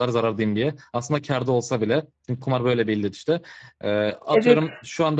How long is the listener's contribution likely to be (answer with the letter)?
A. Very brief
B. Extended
A